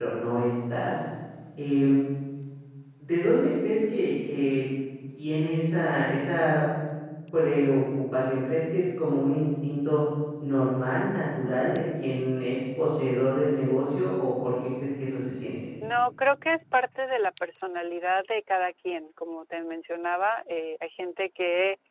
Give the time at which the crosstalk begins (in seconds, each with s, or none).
none